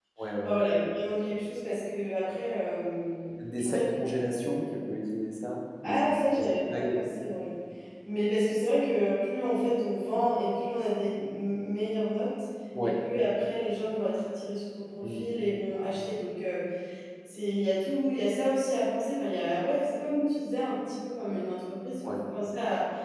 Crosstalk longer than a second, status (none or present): present